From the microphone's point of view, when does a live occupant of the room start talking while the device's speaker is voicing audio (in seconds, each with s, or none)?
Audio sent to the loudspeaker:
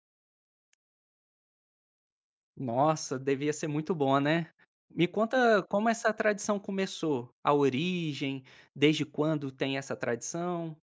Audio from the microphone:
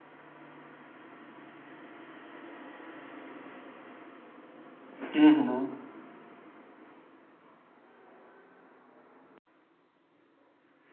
5.2 s